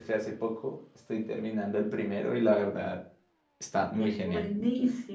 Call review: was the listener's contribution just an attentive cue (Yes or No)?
No